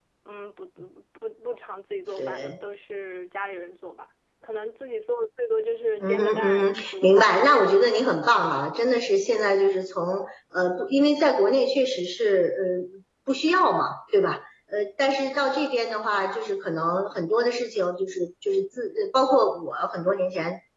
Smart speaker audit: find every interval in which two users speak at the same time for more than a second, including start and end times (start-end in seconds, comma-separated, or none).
6.0-8.1